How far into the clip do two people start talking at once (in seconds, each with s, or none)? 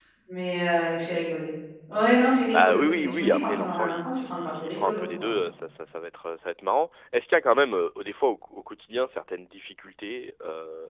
2.5 s